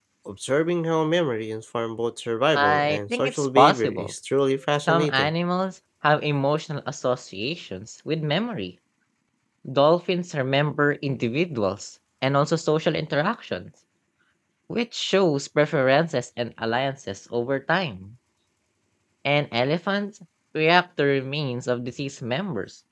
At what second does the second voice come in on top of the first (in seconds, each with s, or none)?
2.5 s